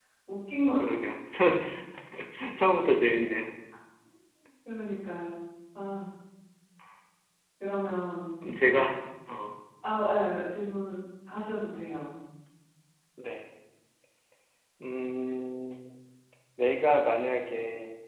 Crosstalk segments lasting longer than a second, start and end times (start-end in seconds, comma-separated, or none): none